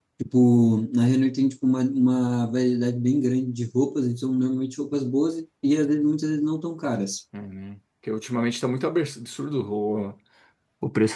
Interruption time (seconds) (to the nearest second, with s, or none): none